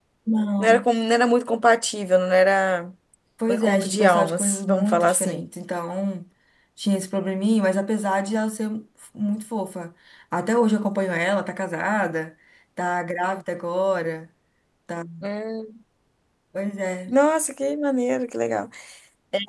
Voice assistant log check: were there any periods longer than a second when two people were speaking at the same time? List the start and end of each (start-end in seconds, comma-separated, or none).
3.5-5.4